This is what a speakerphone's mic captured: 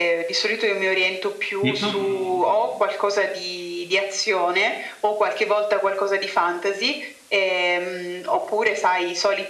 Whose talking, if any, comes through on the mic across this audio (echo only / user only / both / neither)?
both